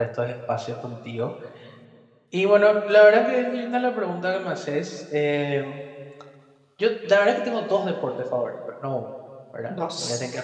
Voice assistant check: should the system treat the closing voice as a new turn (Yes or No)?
No